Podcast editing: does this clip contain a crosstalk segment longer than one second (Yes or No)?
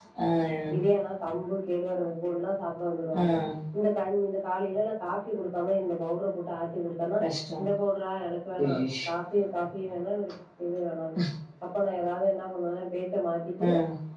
No